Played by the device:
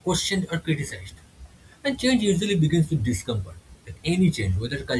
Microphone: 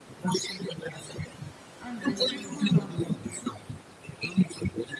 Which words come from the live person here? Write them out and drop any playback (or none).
And respectful language,